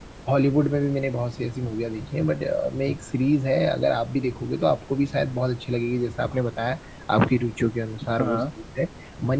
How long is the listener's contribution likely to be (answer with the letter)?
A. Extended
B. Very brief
B